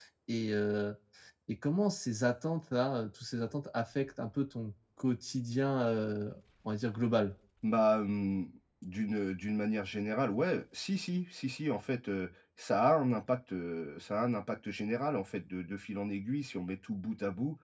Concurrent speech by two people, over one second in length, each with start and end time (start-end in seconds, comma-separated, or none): none